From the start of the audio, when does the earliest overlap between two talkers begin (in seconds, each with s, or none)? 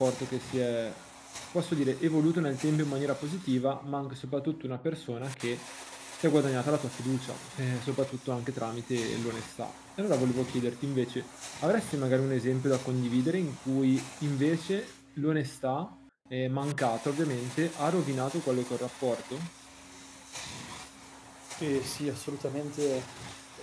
none